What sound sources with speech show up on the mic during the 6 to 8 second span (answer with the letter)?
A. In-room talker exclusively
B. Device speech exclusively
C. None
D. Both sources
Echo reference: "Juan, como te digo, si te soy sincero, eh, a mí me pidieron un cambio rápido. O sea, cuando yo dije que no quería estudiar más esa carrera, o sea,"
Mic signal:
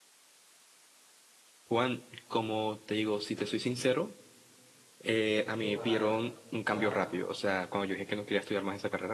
D